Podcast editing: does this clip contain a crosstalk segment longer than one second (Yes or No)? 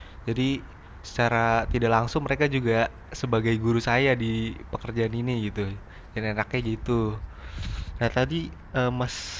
No